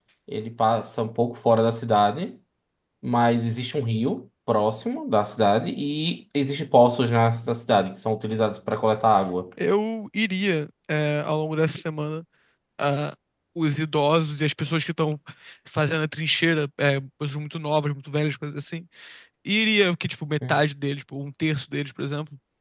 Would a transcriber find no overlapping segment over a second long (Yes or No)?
Yes